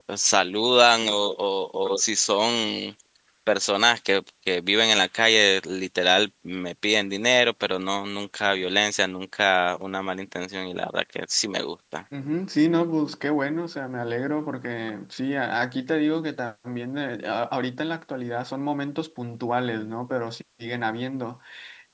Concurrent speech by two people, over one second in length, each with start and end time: none

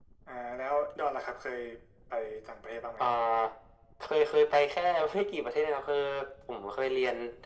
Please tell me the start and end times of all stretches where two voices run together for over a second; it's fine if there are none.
none

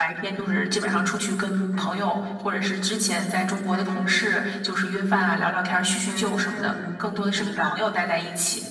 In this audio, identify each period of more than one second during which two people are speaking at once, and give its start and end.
6.1-7.8

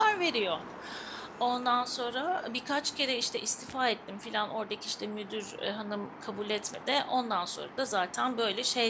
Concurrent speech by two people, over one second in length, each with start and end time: none

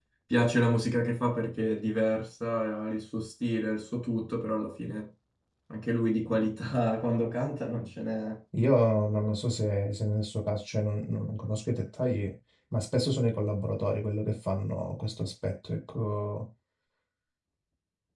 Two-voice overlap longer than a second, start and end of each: none

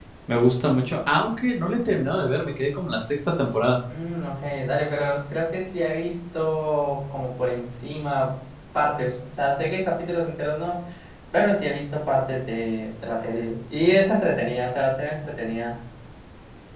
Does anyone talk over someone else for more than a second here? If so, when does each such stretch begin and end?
none

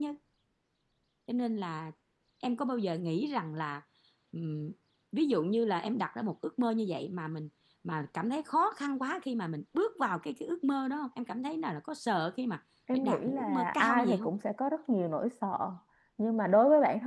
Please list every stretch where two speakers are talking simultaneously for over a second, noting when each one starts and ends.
12.9-14.3

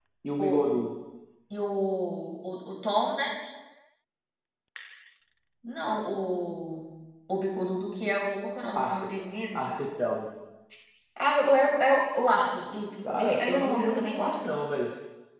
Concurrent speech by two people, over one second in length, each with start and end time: 13.0-14.5

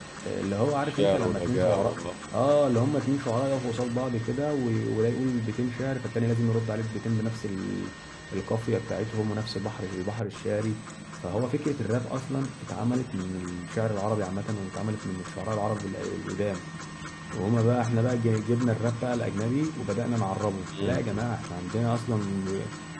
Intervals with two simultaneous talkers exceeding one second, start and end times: 0.8-2.0

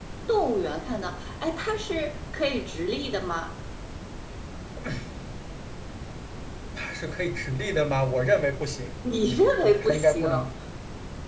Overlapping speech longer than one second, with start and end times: 9.2-10.5

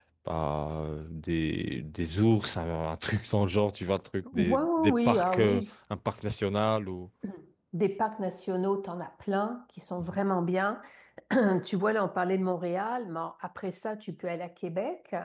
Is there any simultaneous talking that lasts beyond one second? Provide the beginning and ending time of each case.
4.3-5.7

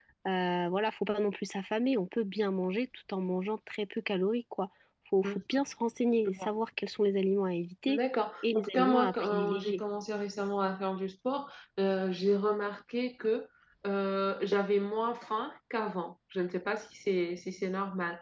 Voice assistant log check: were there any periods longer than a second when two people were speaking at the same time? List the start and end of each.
8.4-9.8

